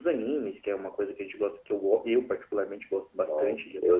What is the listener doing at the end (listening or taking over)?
taking over